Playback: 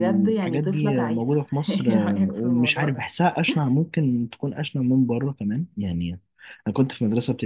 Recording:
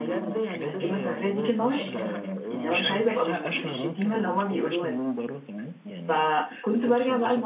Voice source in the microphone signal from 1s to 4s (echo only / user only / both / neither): both